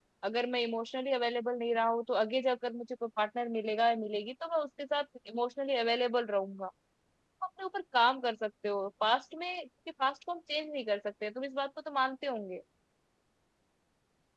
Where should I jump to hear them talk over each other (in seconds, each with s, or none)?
none